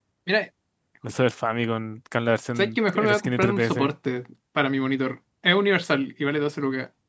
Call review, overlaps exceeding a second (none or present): present